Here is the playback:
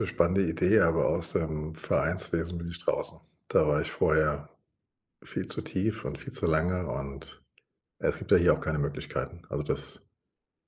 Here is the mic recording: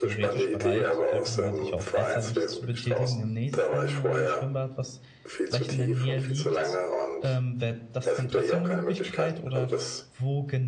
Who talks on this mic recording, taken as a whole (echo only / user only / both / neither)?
both